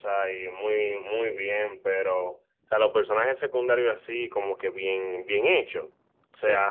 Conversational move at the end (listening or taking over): listening